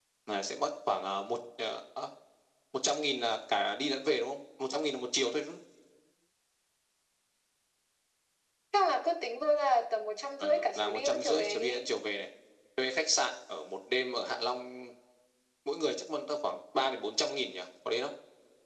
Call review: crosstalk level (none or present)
present